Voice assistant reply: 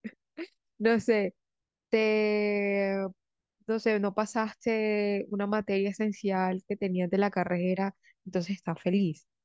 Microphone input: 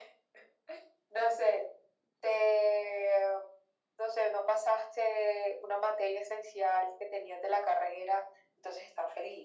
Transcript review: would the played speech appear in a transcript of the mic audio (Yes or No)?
Yes